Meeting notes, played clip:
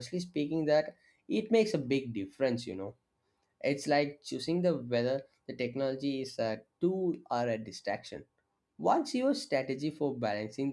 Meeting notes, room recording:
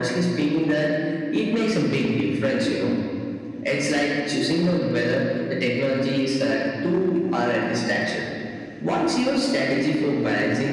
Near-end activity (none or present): none